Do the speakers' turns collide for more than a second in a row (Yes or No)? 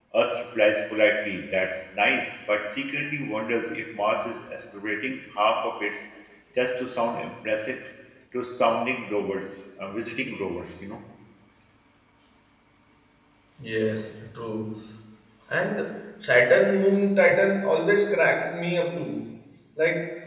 No